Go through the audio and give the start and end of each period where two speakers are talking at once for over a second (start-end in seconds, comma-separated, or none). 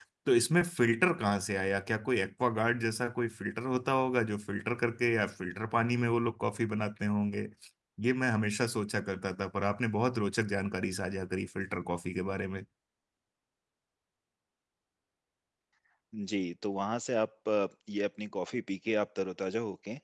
none